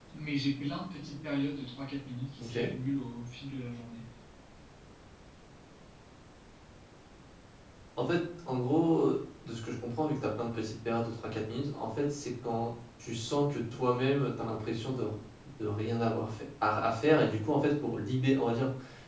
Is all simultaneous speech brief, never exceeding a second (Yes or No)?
Yes